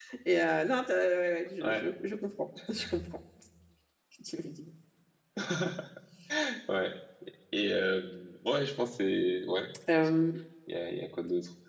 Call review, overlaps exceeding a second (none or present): none